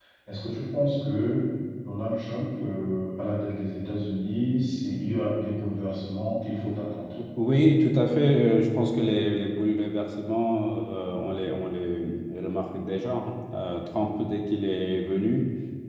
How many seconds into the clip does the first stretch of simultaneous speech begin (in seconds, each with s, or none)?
none